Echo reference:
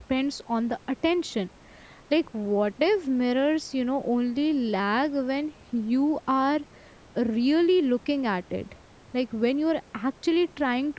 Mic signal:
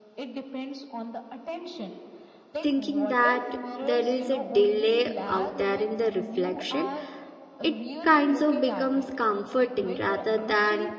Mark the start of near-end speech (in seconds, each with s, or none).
2.6 s